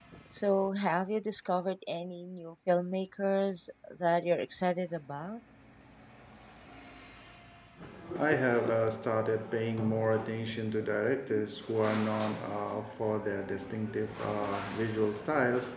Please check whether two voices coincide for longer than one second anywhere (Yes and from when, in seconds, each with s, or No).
No